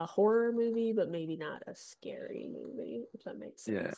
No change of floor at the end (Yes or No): No